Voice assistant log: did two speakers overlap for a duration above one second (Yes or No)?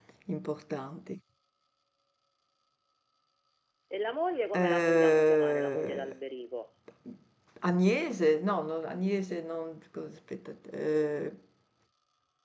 Yes